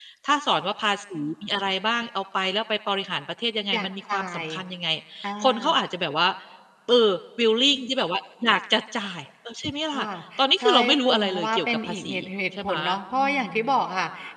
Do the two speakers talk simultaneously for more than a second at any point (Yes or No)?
Yes